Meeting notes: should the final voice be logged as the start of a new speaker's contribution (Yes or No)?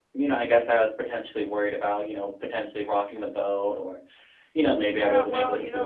Yes